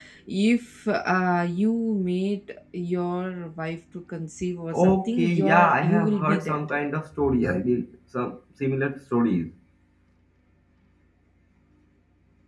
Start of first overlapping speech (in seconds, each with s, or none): 4.7 s